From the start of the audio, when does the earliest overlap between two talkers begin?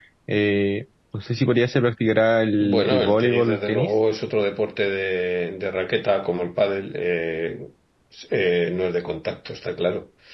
2.6 s

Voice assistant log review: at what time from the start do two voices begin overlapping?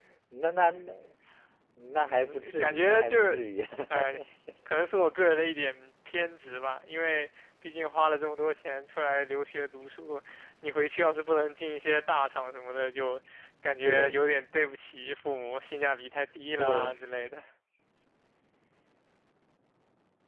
2.0 s

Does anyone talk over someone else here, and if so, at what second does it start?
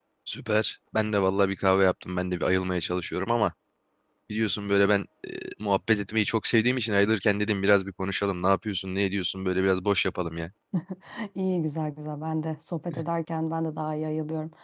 none

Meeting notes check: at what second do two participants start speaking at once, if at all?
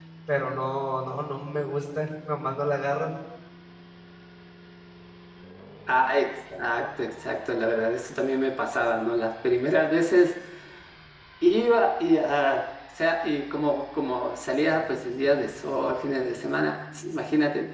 none

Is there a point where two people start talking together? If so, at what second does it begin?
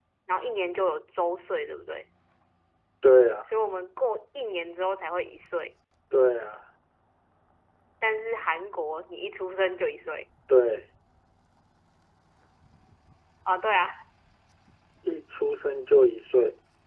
none

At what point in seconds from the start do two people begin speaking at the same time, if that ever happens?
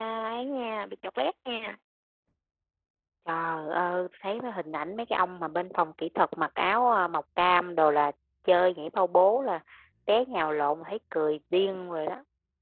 none

